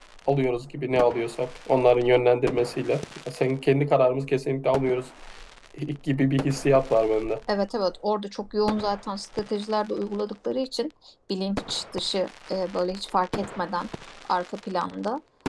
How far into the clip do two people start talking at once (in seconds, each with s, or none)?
none